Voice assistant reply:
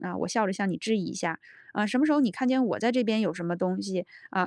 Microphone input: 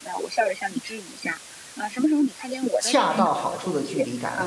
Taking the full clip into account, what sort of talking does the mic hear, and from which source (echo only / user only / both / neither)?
both